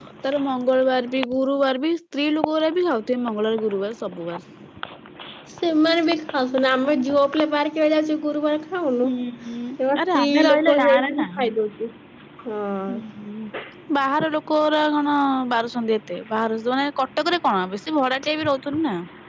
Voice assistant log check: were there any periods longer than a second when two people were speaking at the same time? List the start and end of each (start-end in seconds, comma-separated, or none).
9.9-11.3